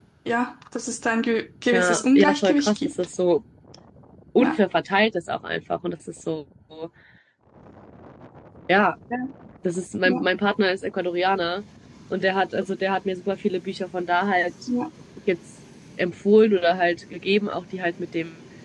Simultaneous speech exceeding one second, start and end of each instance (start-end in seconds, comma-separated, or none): 1.7-2.9